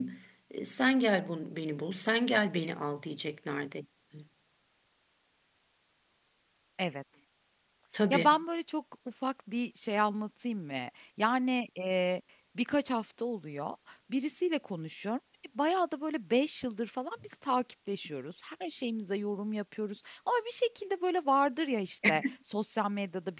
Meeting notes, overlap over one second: none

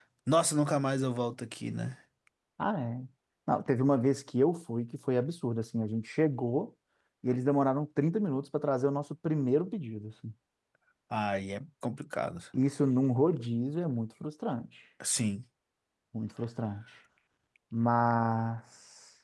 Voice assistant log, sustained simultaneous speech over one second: none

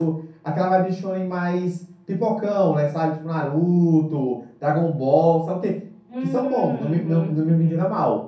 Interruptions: present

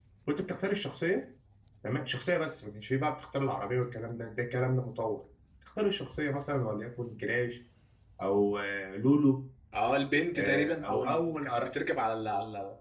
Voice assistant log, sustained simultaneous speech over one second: present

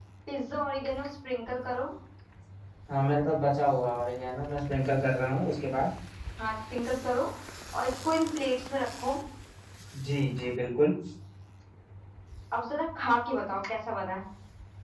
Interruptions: none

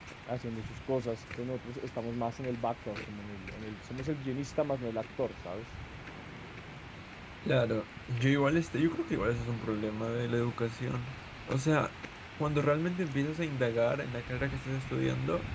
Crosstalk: none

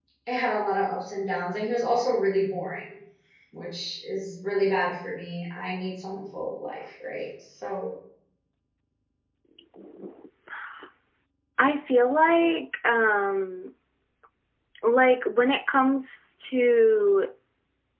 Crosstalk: none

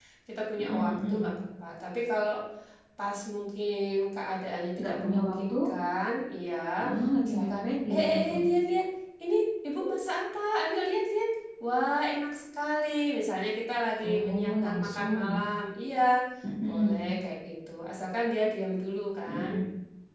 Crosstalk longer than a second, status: present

